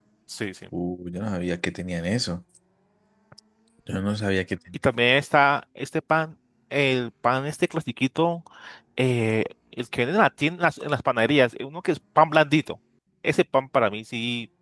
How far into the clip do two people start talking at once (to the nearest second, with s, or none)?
none